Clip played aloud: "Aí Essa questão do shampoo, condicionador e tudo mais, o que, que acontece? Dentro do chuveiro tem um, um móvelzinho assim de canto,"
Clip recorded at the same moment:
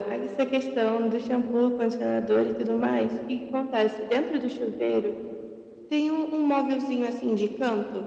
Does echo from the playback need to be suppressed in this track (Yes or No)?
Yes